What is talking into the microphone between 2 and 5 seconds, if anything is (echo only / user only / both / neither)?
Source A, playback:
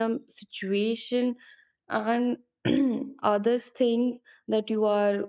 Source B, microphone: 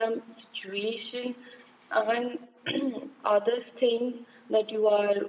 echo only